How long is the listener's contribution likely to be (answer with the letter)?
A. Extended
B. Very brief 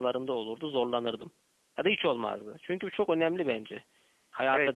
A